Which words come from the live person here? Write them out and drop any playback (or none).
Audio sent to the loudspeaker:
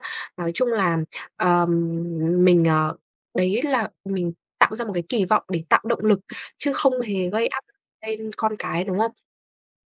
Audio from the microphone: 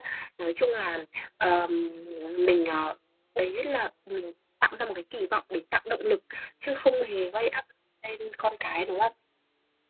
none